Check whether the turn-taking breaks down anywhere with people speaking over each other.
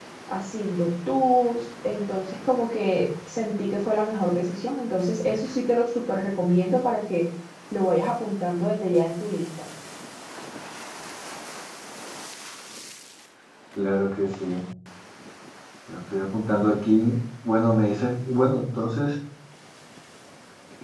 No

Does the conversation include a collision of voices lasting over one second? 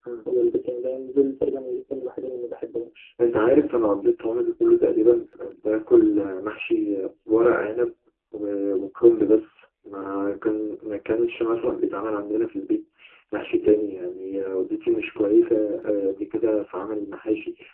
No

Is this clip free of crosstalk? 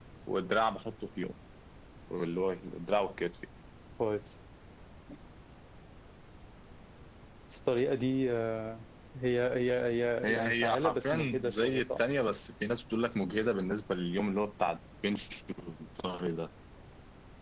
No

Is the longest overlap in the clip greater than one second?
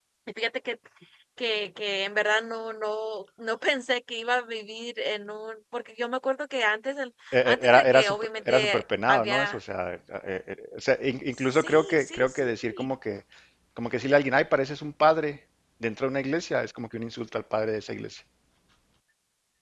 Yes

